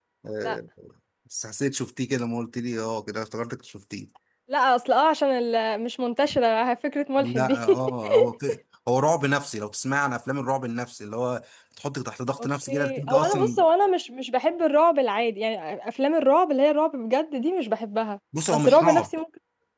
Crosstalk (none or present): present